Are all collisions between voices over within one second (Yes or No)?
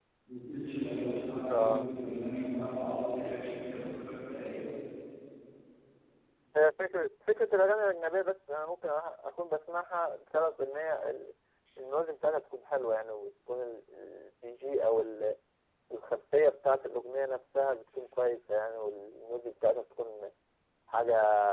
Yes